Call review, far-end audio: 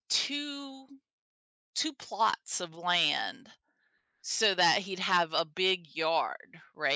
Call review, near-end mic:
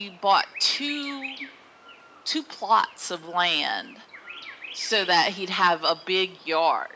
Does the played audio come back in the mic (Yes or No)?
Yes